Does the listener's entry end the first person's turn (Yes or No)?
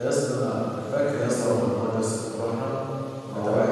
No